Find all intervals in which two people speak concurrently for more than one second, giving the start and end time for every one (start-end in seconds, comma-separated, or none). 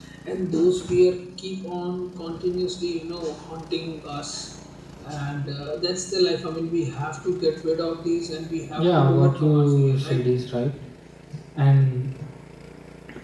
8.8-10.2